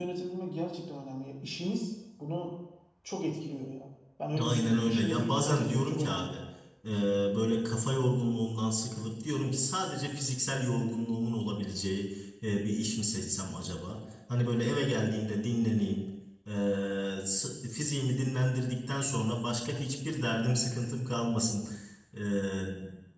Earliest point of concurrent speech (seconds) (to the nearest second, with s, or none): 4 s